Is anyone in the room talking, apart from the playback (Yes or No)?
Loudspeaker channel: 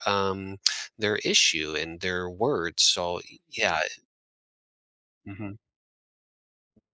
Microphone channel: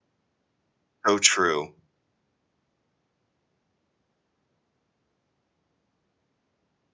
Yes